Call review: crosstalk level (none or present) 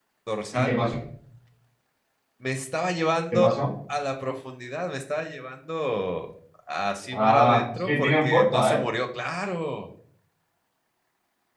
present